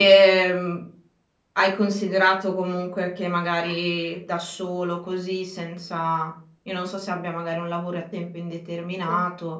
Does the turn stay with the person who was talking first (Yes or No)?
Yes